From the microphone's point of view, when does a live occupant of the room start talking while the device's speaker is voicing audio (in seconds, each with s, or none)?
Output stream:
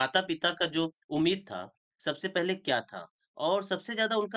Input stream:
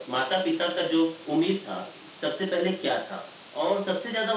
none